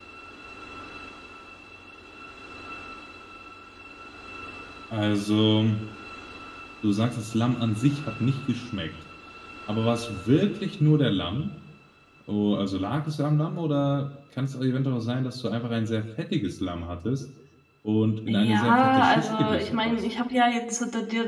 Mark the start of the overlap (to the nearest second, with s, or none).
18 s